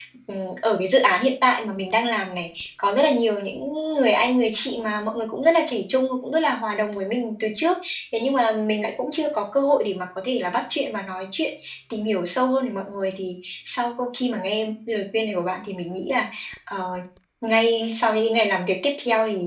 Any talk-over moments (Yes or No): No